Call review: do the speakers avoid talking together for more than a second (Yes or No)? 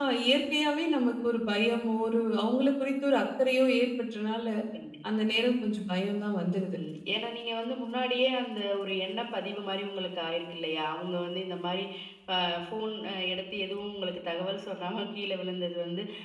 Yes